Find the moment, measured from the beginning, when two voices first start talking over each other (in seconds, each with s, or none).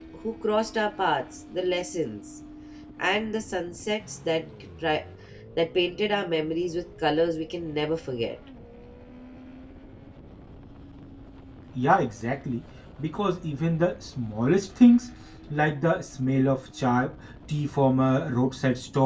none